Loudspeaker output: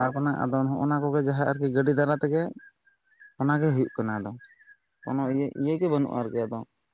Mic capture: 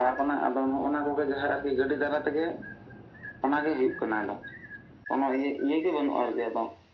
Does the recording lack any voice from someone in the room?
Yes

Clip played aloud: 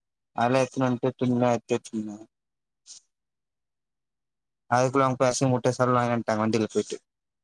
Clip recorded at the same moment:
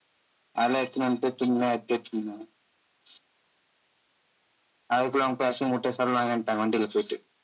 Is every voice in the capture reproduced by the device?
Yes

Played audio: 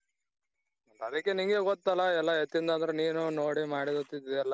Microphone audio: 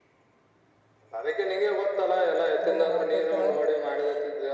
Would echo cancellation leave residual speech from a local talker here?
Yes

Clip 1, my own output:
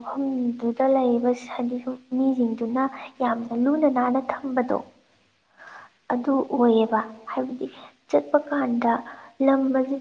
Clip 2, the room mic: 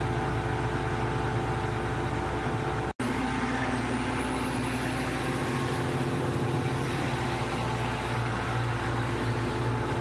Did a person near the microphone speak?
No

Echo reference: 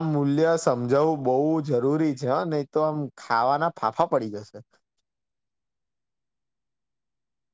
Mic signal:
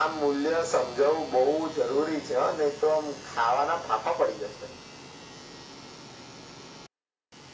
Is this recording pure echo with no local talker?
Yes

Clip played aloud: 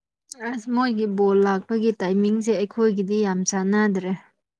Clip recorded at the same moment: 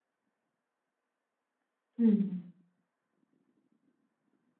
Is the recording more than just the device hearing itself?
Yes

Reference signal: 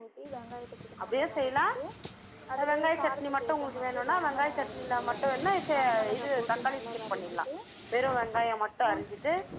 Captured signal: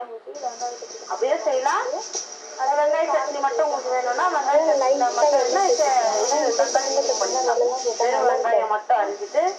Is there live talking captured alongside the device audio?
Yes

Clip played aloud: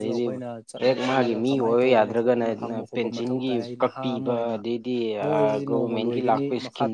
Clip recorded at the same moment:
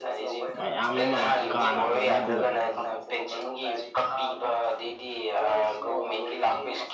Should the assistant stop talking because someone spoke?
Yes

